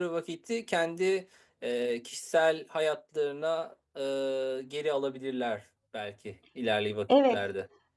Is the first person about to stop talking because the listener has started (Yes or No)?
Yes